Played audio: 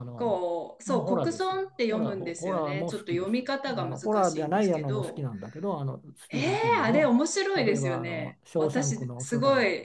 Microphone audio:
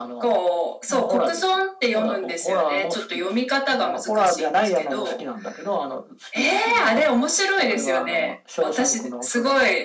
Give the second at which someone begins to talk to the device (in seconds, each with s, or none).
none